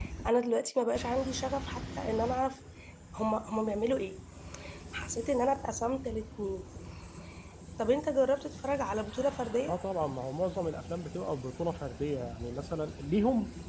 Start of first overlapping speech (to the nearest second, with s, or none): none